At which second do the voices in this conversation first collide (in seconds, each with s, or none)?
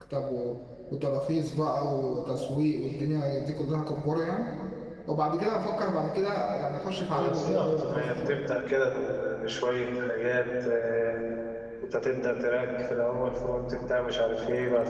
7.1 s